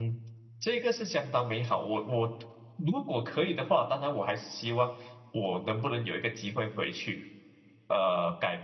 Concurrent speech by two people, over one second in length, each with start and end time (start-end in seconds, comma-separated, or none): none